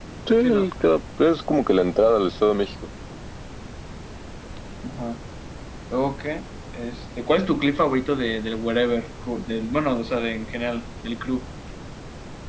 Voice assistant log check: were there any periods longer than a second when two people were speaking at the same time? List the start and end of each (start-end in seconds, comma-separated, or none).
none